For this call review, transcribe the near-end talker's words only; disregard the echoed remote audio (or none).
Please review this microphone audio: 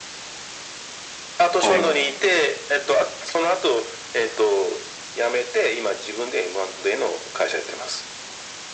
はい。